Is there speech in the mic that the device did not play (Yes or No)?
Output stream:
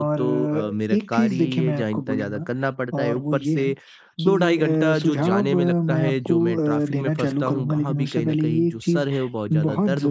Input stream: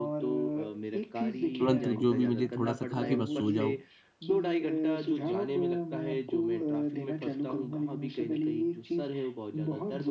Yes